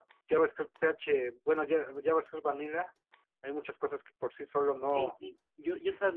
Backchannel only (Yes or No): No